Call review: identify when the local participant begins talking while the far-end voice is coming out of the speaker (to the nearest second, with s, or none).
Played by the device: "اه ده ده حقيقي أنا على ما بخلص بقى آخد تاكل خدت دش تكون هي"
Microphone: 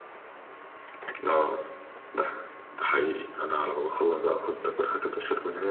none